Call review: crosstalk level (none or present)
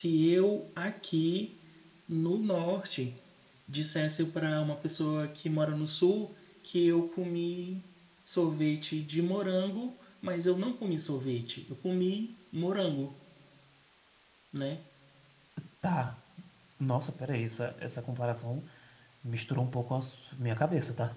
none